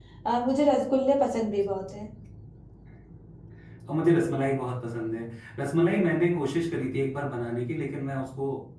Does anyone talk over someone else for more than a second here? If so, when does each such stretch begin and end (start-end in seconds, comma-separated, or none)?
none